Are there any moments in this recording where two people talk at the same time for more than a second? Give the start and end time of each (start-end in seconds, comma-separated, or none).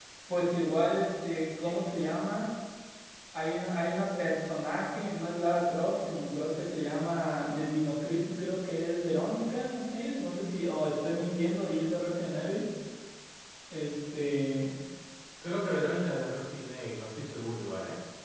none